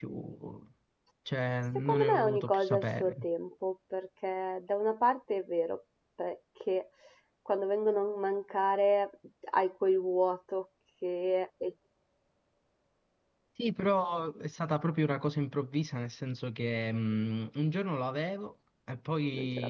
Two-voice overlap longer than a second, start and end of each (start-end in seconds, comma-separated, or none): 1.8-3.1